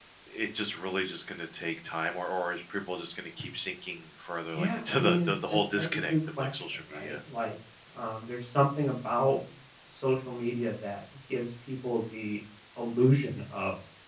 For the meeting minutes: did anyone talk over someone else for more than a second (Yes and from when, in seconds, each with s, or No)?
Yes, from 4.6 s